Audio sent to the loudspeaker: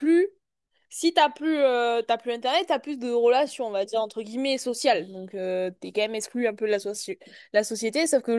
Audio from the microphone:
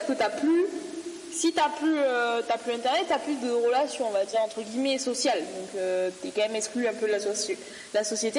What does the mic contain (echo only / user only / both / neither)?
echo only